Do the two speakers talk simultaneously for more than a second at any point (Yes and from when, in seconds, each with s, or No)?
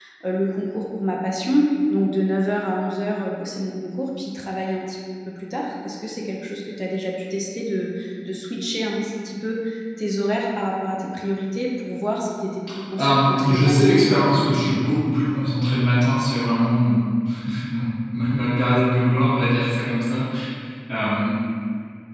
Yes, from 13.0 s